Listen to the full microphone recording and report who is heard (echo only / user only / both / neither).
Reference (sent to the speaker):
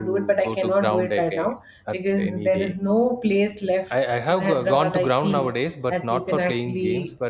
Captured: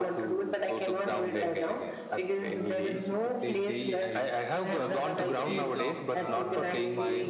both